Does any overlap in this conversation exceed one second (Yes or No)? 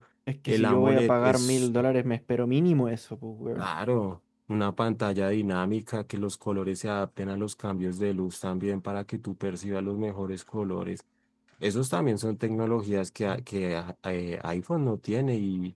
Yes